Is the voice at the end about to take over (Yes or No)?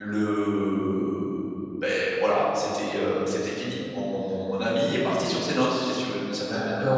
Yes